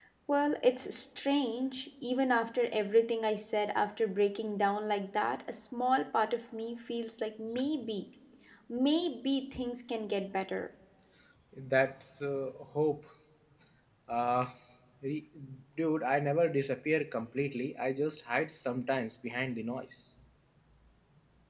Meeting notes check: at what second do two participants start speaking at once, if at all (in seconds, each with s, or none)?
none